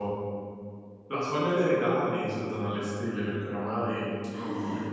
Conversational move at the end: listening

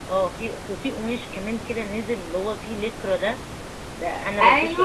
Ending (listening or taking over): taking over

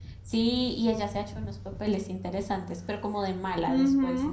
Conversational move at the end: taking over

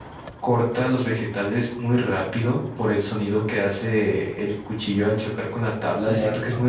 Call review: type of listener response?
listening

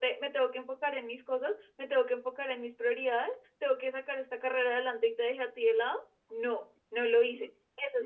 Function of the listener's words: taking over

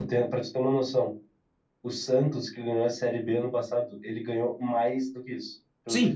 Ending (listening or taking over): taking over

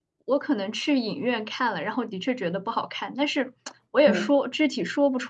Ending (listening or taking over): listening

